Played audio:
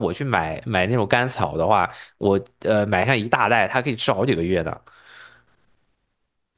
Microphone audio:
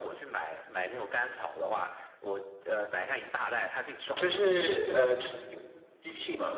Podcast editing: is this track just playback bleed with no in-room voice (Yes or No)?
No